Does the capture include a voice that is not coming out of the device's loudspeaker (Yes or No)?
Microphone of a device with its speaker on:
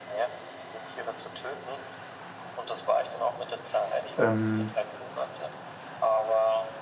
Yes